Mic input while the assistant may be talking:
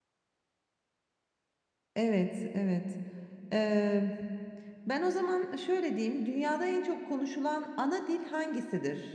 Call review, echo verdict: none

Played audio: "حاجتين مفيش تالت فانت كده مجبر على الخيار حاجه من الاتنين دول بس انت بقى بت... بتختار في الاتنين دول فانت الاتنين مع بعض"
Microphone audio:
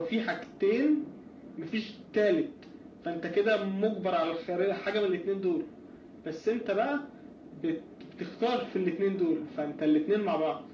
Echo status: present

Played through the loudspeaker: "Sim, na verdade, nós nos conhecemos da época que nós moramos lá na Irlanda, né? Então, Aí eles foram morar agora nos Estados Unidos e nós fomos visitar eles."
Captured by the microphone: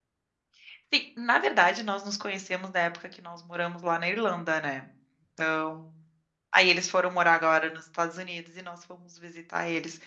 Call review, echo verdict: present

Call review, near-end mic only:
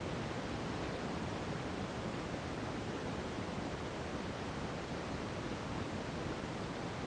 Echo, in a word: none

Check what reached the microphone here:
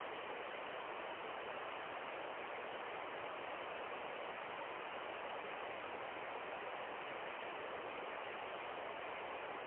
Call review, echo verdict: none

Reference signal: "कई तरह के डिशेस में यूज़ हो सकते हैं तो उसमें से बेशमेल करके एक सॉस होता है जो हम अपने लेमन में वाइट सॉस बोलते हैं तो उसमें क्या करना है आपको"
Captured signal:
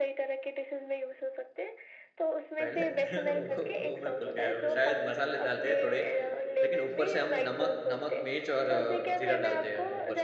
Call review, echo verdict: present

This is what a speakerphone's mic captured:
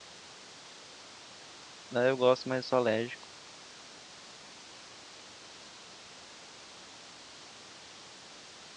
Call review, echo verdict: none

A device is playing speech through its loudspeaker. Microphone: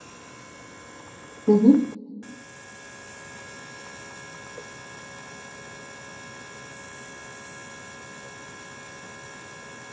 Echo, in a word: none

